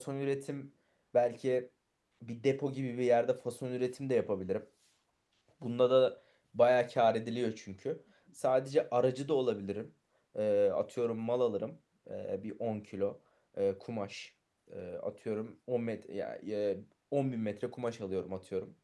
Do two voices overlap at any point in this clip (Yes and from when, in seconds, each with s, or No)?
No